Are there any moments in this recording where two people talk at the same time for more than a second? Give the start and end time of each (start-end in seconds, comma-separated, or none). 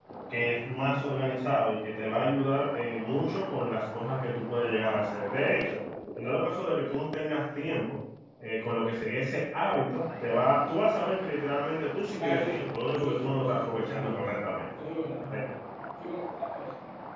12.2-14.2